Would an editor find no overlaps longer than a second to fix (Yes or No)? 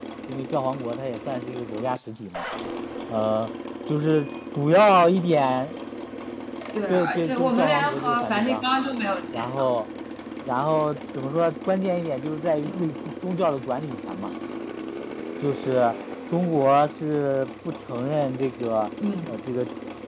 No